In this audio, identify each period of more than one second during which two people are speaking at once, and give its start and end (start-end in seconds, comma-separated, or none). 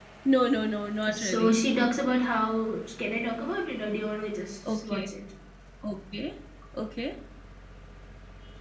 none